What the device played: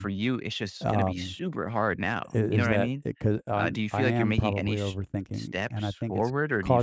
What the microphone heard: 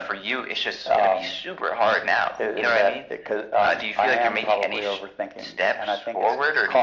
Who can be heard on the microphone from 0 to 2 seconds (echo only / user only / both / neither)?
echo only